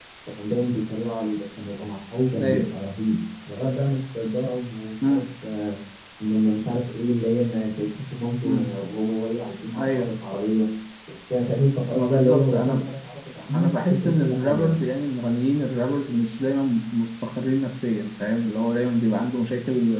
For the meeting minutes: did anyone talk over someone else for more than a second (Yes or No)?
Yes